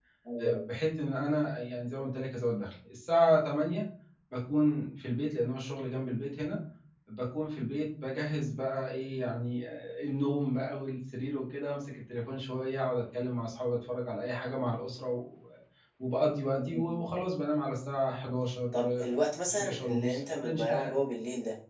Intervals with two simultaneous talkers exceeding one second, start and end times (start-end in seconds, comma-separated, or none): 19.5-21.0